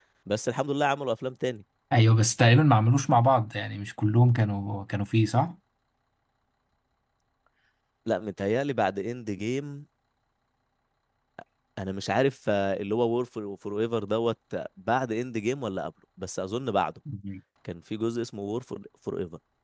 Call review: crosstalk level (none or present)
none